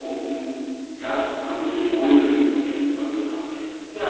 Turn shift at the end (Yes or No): Yes